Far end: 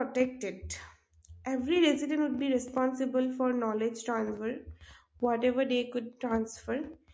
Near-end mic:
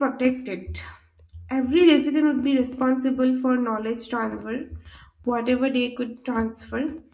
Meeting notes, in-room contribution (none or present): none